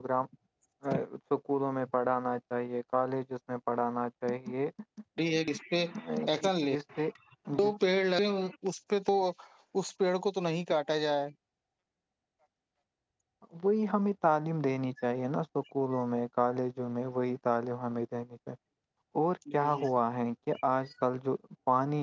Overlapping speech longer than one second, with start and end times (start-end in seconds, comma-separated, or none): none